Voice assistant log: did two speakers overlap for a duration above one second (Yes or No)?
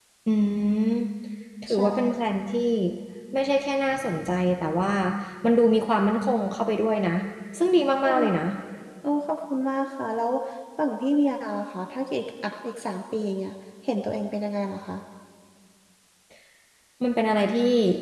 No